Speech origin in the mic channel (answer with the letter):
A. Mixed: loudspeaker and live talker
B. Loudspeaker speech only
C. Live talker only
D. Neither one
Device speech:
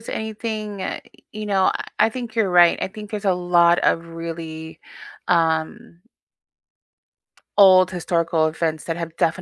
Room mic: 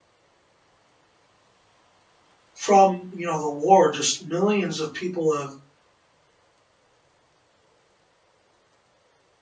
C